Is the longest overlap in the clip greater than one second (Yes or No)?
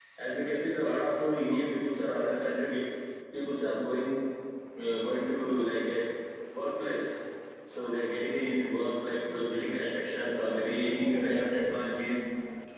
Yes